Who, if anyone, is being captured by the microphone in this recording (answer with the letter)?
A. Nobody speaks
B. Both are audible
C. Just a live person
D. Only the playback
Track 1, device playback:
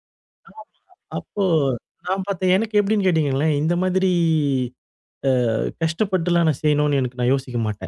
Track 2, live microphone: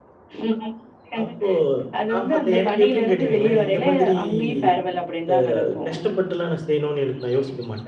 B